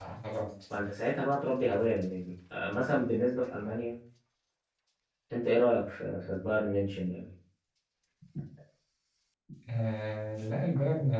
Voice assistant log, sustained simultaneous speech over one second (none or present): none